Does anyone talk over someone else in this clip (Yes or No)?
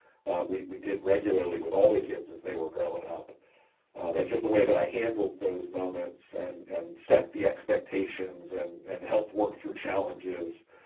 No